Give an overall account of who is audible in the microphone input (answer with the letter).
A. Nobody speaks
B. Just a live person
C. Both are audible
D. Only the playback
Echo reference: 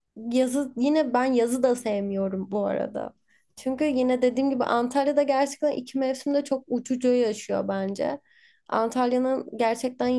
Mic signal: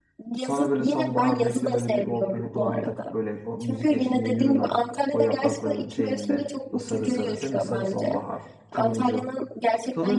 C